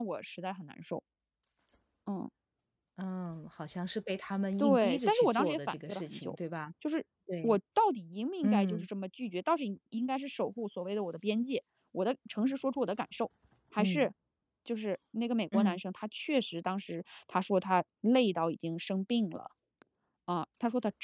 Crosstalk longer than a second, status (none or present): present